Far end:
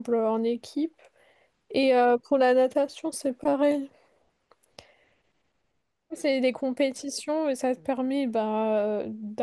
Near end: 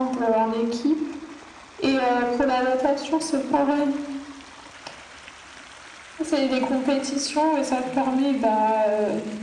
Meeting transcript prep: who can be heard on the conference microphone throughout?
echo only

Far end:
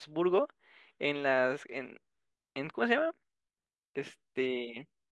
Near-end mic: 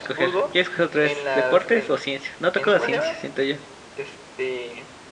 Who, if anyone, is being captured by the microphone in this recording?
both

